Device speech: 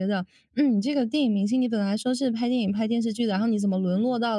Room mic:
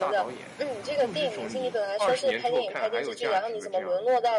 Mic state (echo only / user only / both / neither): both